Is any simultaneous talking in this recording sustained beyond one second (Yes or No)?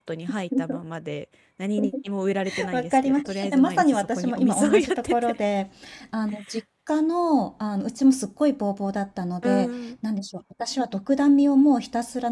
Yes